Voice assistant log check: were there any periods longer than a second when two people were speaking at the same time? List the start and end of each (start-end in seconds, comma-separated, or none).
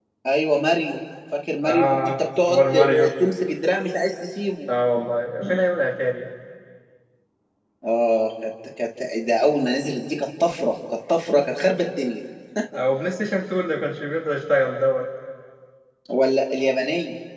1.6-3.1